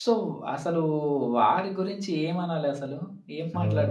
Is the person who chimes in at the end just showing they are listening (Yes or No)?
No